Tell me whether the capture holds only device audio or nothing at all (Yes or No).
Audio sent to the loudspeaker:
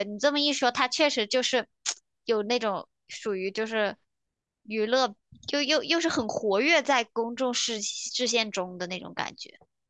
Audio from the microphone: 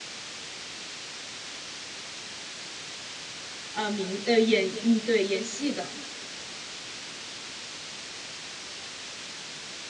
No